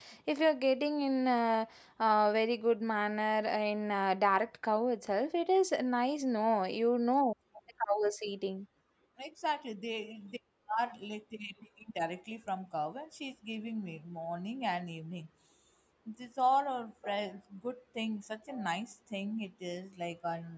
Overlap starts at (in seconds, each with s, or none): none